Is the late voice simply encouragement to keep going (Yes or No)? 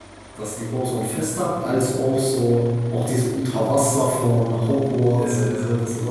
Yes